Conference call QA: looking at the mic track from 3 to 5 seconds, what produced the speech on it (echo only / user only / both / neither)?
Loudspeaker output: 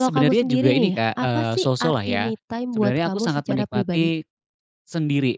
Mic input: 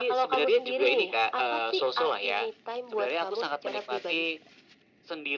echo only